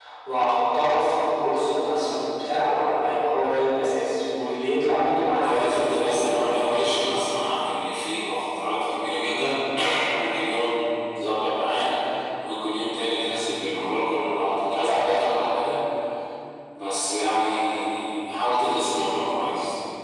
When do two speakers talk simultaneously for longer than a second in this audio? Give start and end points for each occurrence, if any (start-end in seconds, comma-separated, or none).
5.4-7.0